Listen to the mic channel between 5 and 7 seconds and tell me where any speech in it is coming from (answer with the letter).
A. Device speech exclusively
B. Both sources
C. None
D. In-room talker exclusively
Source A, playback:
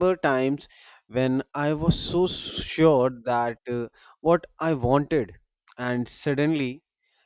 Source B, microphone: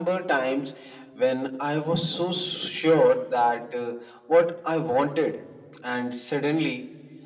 A